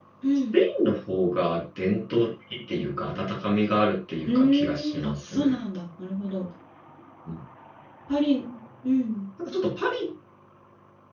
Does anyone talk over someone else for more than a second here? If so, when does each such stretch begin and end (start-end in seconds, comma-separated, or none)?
4.2-5.6